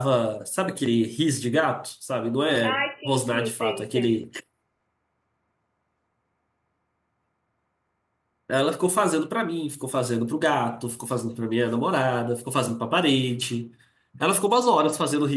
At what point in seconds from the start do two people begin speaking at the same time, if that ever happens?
3 s

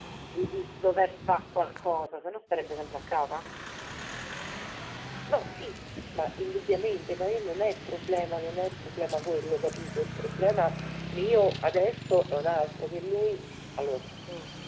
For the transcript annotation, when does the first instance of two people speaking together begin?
none

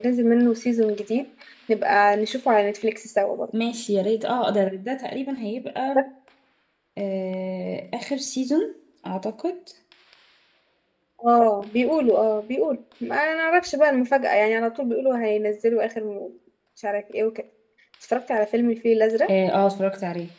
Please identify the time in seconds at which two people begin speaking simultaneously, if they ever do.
none

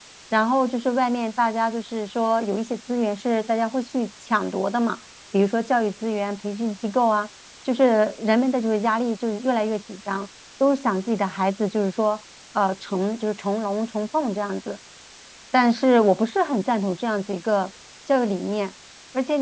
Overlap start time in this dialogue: none

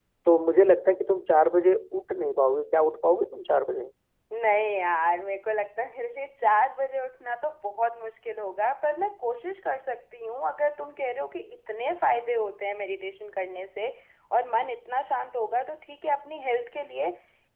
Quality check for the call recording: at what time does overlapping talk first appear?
none

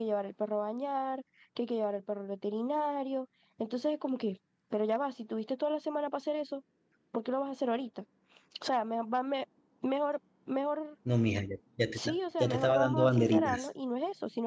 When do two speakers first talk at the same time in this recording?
12 s

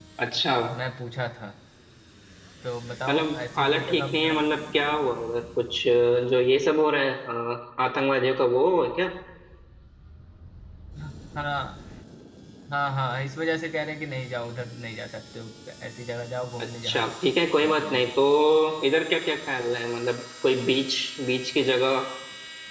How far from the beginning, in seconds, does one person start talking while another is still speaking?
3 s

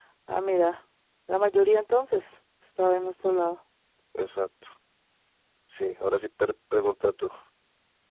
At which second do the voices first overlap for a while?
none

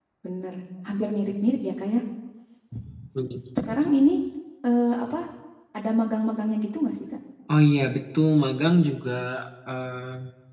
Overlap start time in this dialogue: none

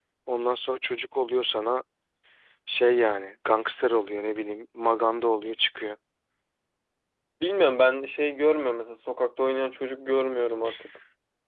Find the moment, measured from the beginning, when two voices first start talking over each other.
none

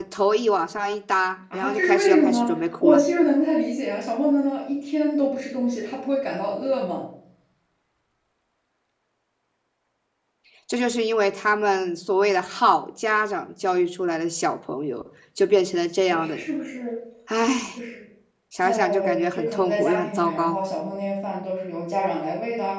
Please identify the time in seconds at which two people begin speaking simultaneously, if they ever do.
2 s

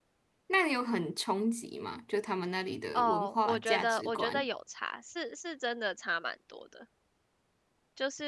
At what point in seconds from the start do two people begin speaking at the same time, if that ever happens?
3 s

